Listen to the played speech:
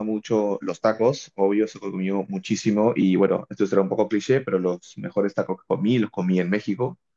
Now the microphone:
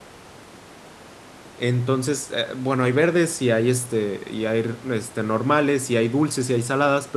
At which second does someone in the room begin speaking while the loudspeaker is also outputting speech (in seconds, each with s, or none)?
1.5 s